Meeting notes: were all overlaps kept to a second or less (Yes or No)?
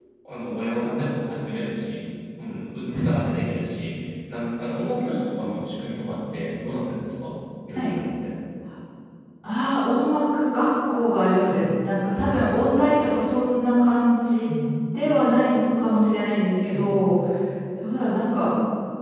Yes